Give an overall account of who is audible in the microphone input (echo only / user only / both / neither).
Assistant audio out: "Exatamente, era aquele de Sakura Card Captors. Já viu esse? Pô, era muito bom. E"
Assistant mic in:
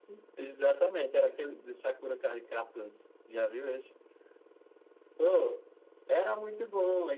echo only